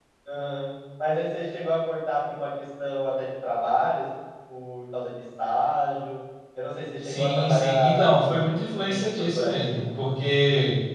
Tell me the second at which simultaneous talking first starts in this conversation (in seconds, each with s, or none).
7.0 s